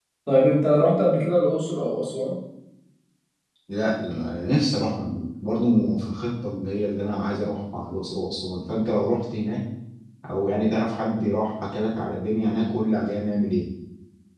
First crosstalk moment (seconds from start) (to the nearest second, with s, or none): none